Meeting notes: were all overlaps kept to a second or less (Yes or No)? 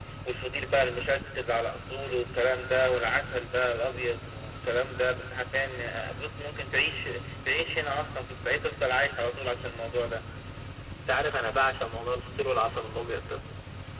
Yes